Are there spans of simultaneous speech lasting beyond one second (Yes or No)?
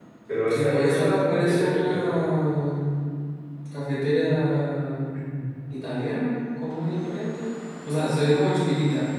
Yes